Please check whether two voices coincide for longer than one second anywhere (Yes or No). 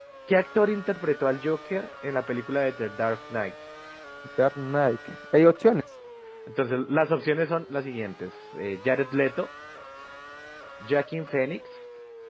No